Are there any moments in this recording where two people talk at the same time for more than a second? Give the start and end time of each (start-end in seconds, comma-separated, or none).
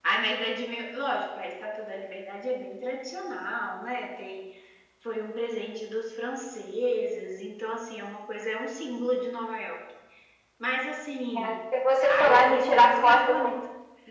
12.1-13.5